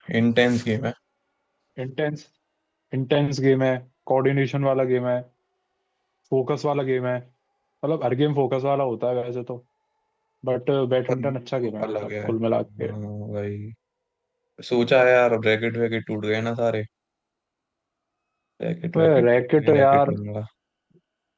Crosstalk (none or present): present